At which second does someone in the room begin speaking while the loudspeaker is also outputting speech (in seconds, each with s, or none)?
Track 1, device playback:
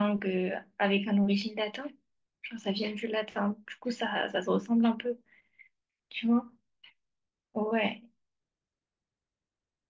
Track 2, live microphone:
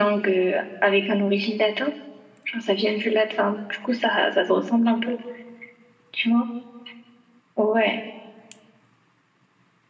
none